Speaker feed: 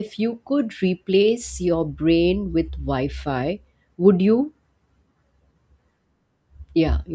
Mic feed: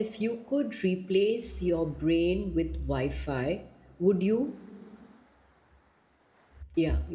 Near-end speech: none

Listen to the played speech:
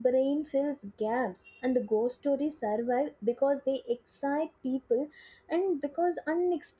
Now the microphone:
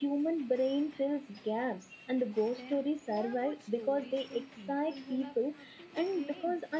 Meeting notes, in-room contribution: present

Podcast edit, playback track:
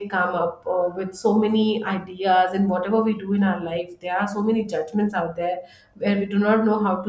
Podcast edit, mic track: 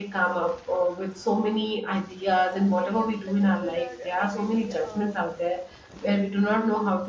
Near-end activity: present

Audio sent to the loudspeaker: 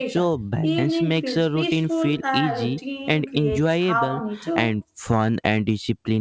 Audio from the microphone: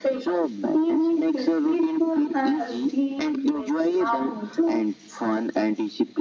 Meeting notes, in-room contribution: none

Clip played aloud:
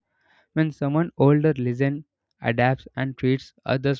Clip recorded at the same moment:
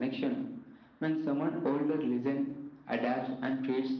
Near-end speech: none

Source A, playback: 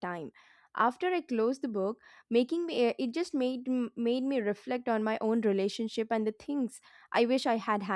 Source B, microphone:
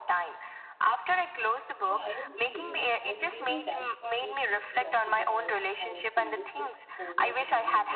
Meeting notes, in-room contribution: present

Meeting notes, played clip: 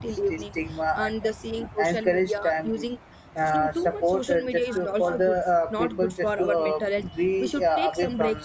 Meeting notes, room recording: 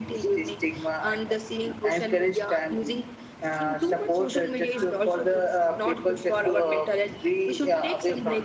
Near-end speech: none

